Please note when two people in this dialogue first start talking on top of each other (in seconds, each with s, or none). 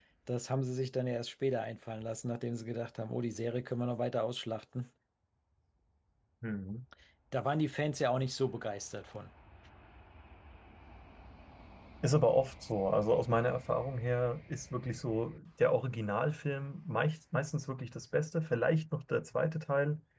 none